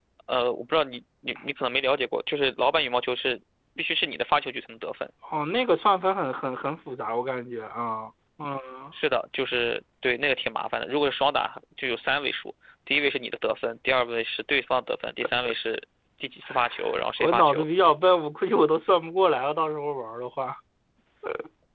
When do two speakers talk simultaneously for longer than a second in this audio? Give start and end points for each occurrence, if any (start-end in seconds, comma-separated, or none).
none